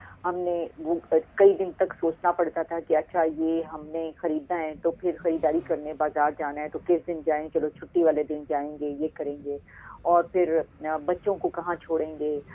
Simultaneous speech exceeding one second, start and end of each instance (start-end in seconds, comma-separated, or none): none